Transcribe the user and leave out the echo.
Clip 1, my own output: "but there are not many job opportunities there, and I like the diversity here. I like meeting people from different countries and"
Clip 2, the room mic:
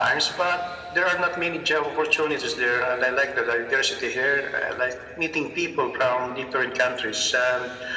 none

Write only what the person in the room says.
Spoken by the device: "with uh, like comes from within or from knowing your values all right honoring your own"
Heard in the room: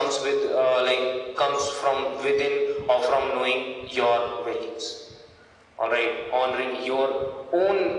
none

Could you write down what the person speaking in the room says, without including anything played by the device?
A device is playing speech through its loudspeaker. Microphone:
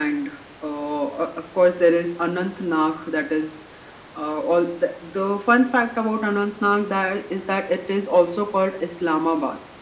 none

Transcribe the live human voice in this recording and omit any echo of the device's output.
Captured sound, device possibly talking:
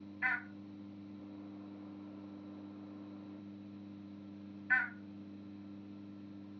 none

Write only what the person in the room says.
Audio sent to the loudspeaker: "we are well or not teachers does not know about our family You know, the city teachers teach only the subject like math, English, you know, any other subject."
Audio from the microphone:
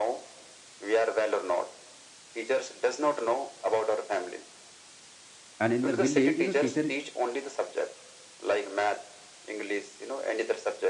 and in the village you know teacher

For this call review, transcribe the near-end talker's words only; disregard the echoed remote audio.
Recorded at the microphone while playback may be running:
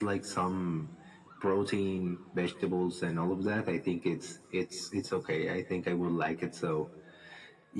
none

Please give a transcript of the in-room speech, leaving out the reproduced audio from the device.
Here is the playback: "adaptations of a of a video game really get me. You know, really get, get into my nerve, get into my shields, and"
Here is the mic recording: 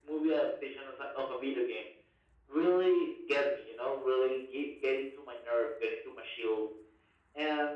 none

